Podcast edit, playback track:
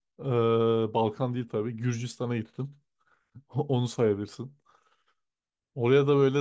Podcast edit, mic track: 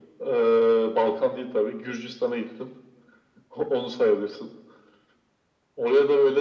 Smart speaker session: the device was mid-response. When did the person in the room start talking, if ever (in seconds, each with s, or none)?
none